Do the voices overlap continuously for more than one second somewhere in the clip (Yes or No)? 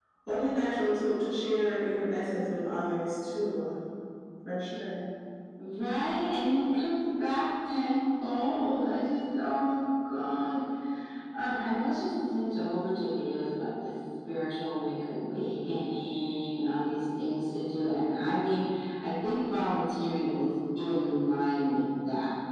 No